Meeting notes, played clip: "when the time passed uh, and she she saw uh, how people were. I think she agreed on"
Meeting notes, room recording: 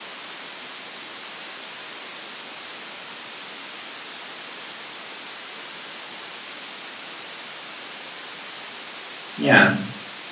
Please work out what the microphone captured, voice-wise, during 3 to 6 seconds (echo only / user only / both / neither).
neither